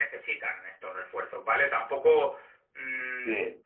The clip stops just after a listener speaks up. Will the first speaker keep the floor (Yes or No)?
Yes